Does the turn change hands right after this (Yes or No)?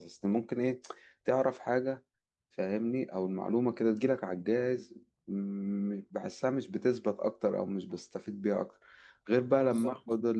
No